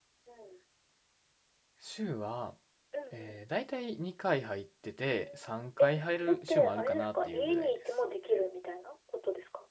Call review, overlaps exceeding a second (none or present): present